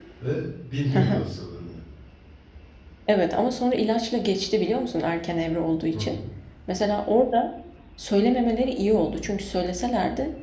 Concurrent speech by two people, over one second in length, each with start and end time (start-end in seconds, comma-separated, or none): none